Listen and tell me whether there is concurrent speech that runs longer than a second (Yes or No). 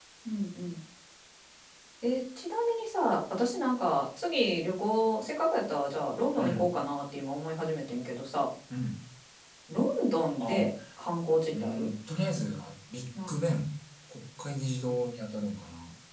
No